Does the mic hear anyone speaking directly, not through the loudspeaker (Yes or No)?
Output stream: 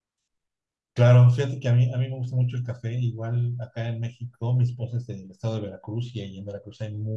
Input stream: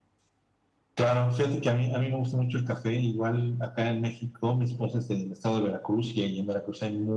No